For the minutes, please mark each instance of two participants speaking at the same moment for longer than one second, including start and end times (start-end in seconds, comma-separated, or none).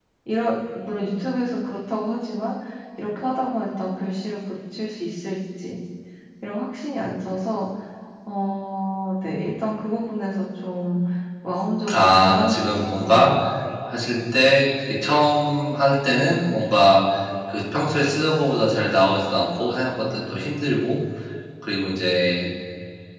11.9-13.1